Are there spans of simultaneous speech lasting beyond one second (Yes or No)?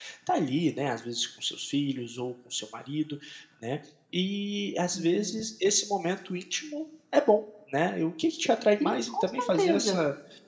Yes